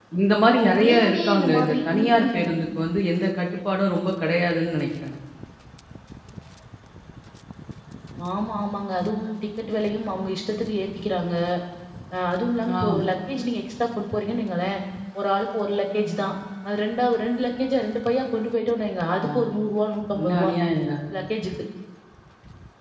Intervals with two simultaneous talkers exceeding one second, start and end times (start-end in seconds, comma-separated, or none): 0.6-2.5